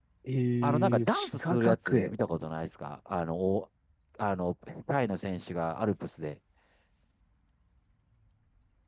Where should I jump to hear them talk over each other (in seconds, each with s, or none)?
0.6 s